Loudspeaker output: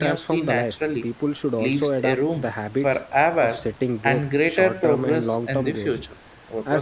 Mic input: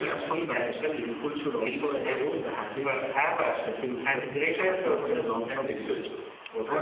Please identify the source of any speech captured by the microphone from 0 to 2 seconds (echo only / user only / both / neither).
echo only